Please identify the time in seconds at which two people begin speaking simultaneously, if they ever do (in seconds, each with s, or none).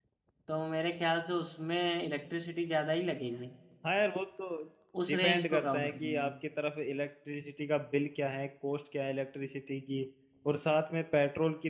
5.1 s